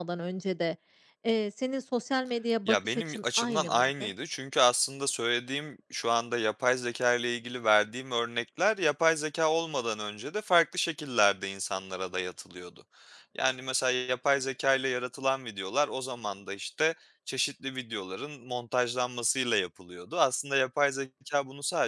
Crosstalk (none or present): present